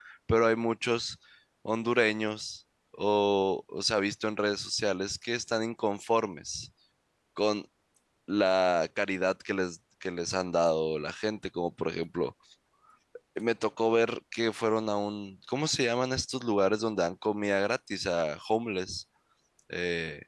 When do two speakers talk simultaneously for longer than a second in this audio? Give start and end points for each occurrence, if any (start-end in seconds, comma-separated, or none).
none